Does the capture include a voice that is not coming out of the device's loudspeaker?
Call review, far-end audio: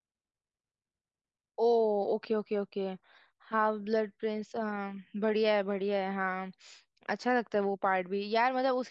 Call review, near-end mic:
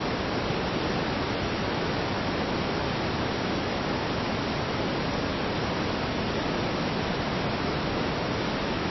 No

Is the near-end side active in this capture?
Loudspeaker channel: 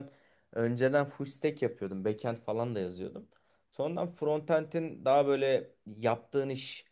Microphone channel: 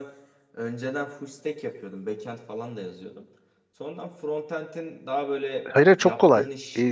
Yes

